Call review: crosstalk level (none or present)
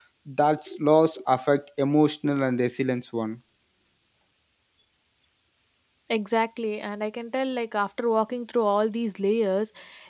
none